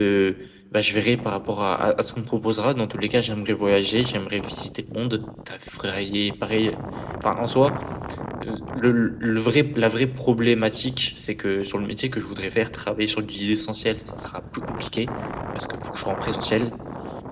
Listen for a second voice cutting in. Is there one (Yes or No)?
No